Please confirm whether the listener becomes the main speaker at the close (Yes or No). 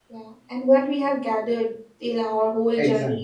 Yes